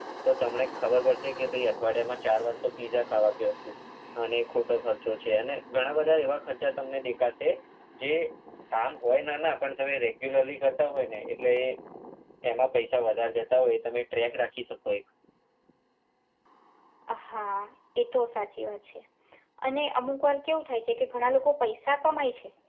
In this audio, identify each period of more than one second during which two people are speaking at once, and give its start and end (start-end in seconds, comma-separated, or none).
none